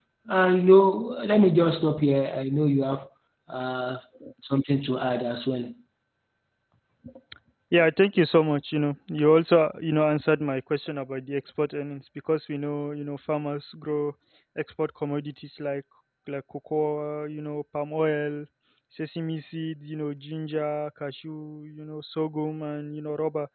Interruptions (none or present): none